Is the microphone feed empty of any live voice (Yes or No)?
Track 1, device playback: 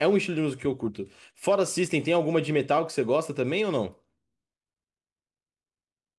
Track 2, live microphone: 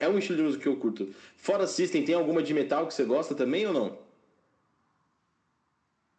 Yes